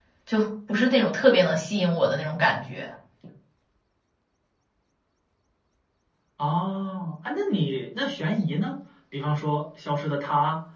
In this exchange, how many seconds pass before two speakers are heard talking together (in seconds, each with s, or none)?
none